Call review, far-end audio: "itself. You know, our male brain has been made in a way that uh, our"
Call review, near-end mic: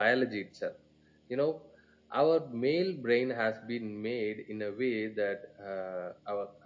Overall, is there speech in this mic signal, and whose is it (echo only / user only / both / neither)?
echo only